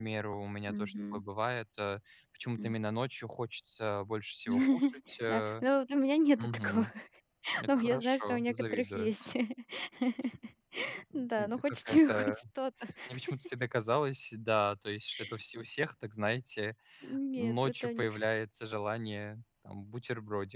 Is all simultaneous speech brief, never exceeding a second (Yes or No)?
No